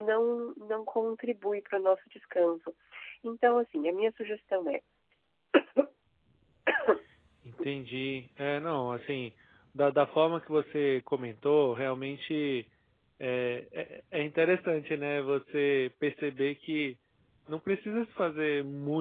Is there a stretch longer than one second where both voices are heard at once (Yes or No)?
No